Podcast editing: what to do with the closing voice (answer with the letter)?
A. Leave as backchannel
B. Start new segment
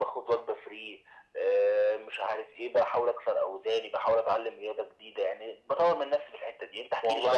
B